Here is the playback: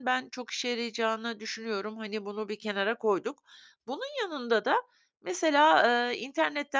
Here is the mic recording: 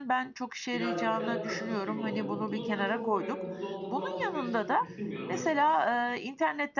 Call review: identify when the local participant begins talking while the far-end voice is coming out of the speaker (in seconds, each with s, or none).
0.7 s